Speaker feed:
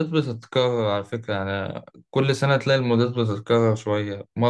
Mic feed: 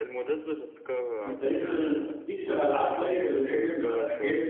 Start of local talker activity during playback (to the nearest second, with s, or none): 1 s